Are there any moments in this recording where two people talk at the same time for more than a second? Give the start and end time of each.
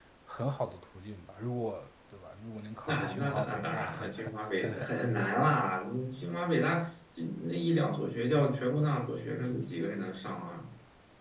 2.9-4.1

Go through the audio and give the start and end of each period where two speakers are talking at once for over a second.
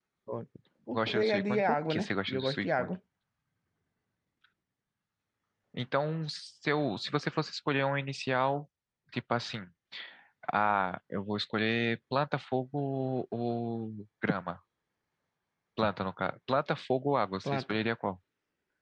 0.9-2.9

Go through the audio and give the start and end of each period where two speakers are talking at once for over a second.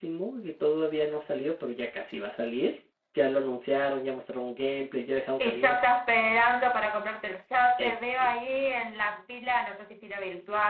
none

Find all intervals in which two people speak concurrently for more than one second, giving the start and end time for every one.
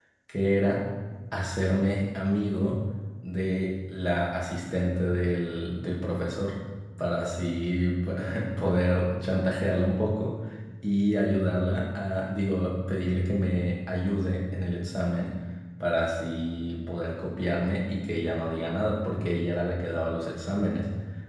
none

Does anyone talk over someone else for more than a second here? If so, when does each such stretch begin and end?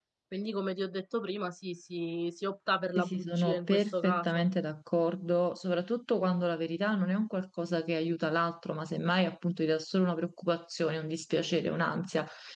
3.0-4.4

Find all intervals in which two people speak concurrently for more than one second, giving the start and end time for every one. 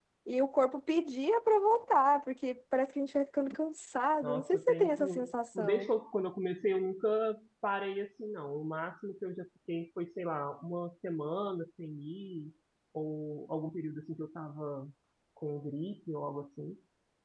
4.2-5.9

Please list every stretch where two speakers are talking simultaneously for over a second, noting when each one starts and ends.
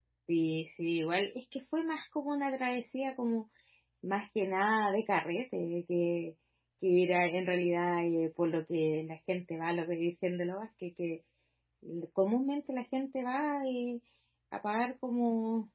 none

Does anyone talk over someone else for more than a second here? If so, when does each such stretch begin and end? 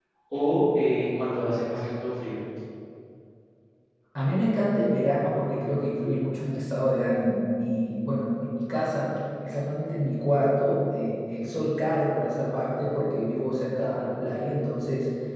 none

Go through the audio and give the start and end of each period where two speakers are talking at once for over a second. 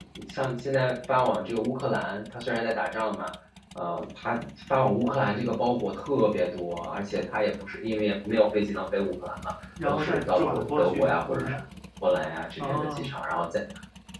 9.8-11.5

